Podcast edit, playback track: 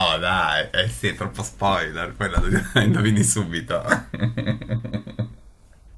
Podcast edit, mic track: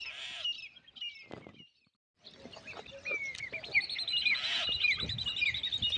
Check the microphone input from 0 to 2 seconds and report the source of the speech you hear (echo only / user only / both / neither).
neither